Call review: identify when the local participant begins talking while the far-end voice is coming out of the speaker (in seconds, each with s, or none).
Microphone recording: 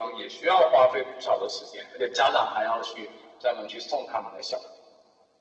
none